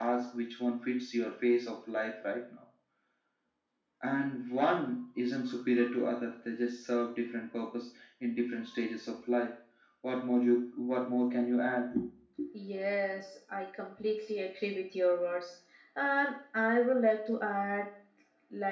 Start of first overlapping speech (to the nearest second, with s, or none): none